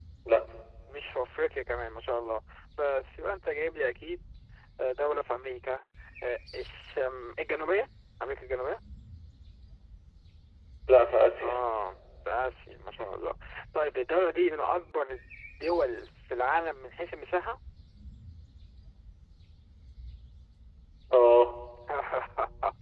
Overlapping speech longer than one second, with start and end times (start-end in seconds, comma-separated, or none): none